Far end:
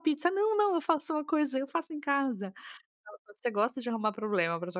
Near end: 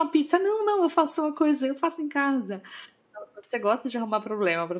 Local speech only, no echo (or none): none